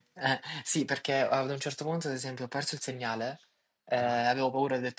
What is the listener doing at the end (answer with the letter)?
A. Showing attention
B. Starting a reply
A